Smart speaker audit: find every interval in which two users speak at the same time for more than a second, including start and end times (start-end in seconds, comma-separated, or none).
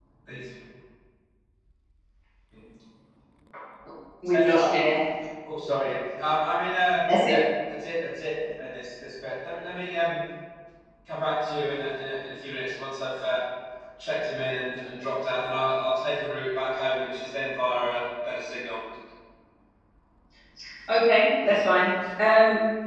none